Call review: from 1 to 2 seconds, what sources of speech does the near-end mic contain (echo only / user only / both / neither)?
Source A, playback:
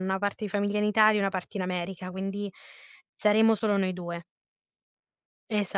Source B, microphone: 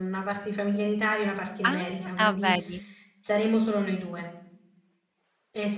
both